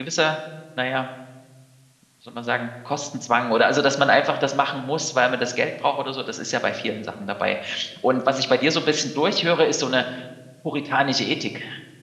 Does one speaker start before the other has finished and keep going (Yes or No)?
No